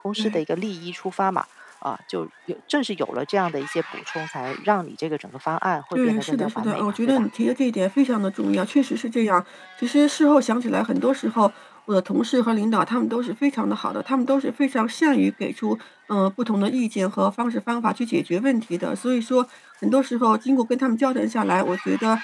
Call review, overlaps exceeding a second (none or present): present